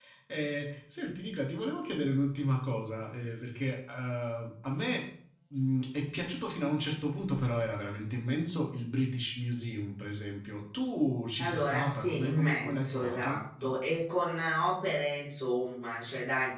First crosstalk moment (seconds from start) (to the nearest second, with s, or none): 11 s